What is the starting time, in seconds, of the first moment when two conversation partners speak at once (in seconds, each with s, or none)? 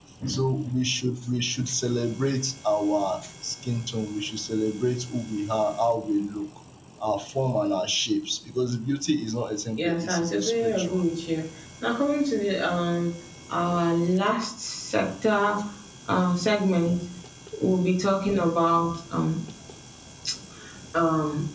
9.8 s